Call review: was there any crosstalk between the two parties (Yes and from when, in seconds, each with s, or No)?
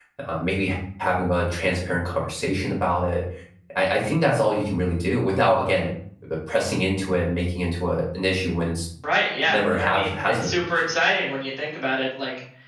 Yes, from 9.4 s